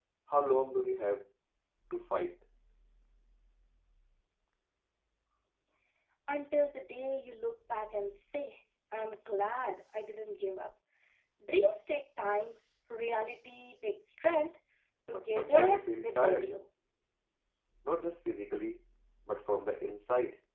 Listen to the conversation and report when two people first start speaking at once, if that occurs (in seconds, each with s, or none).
15.1 s